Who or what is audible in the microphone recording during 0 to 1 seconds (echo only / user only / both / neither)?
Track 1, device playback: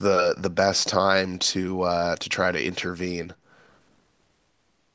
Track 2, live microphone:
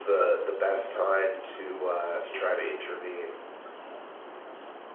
echo only